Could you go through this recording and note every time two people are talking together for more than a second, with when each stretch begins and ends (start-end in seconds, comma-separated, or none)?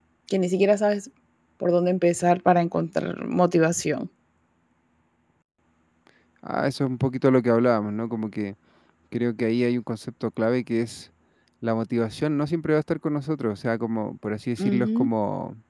none